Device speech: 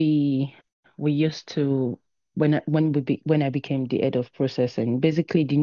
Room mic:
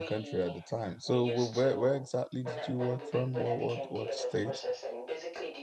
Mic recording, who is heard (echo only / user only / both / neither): both